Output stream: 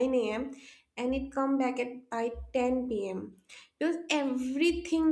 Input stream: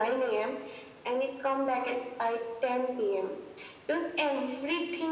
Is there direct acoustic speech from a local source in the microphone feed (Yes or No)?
No